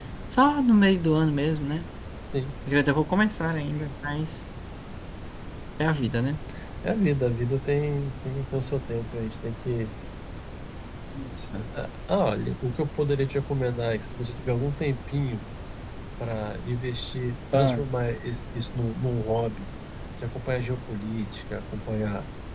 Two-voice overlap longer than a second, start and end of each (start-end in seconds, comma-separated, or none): none